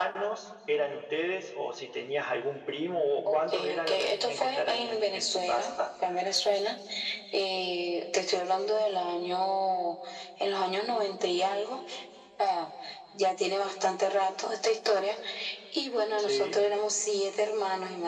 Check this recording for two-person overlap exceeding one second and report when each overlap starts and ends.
3.2-5.7

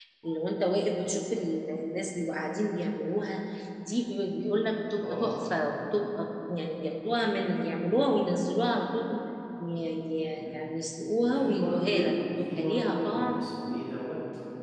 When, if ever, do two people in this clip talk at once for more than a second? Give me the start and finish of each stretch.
11.2-13.4

